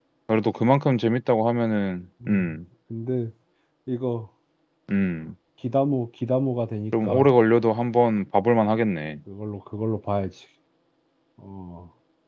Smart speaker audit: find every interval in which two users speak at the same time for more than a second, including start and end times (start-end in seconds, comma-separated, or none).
none